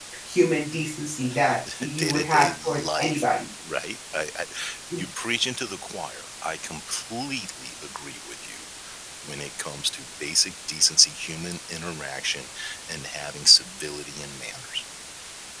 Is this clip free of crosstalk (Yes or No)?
No